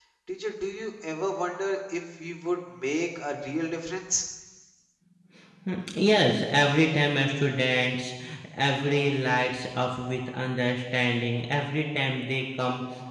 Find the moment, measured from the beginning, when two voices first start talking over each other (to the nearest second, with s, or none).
none